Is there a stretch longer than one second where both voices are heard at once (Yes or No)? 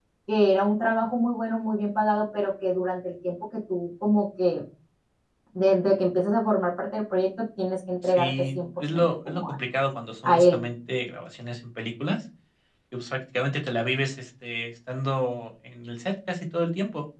Yes